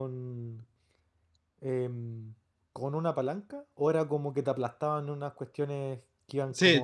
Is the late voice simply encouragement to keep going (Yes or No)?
No